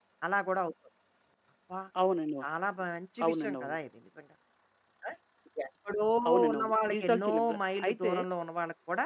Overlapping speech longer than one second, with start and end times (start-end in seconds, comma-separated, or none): 6.5-8.1